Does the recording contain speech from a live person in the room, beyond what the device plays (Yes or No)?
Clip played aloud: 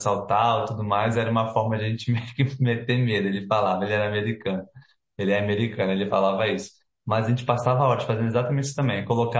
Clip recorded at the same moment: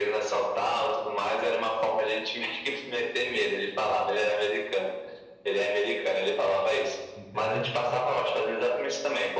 Yes